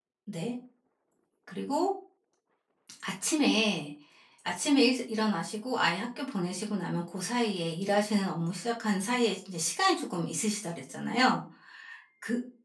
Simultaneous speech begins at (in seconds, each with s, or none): none